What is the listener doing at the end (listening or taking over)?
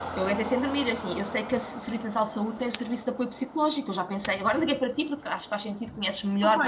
taking over